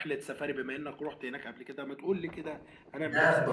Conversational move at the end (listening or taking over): taking over